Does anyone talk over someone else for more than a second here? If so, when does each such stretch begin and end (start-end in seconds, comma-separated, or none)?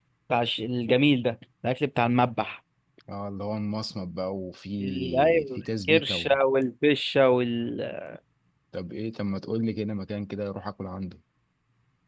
4.8-6.3